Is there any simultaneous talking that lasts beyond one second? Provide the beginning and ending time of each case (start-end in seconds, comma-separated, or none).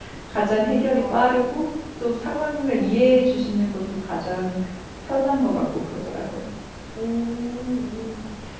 none